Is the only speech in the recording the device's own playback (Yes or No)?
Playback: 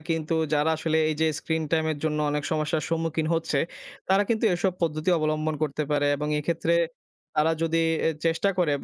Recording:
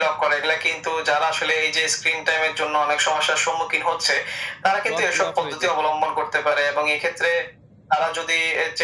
No